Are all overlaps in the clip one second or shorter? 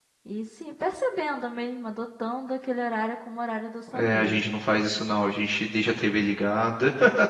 Yes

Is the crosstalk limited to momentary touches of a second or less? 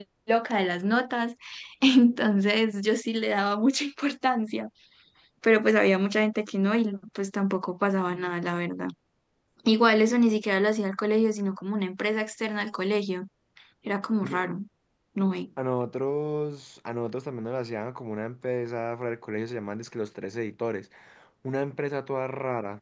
Yes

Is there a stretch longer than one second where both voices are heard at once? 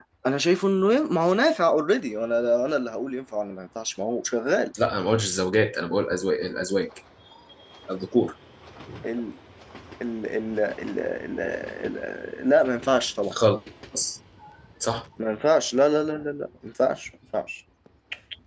No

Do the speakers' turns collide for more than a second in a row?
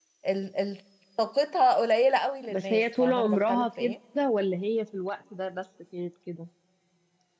Yes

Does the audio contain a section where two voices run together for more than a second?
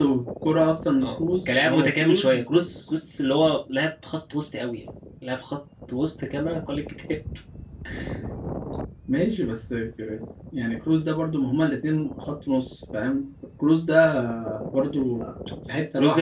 Yes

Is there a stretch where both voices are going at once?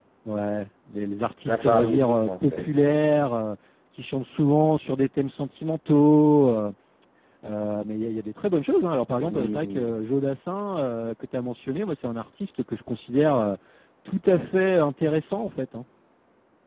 Yes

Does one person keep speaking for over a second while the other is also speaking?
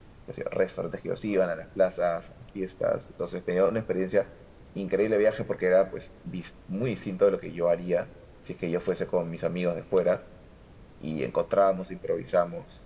No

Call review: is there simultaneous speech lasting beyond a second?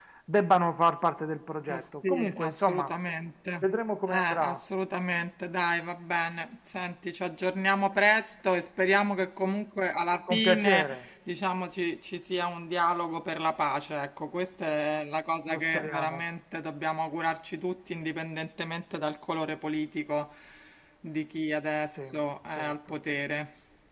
Yes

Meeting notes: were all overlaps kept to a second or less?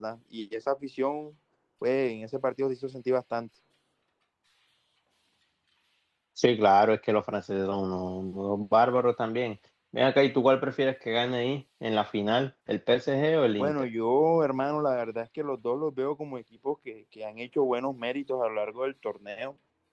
Yes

